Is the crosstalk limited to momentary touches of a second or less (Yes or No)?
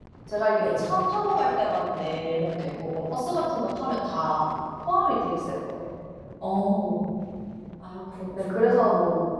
Yes